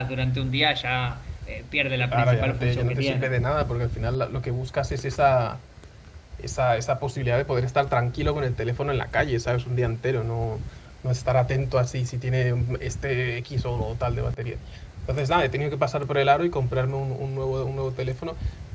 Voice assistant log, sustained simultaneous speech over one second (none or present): present